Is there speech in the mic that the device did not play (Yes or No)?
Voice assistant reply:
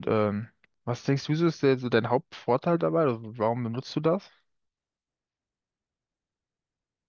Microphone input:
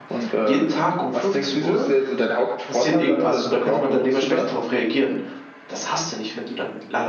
Yes